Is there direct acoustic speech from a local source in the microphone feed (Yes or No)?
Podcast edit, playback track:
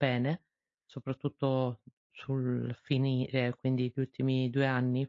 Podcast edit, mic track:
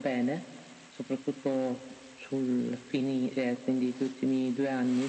No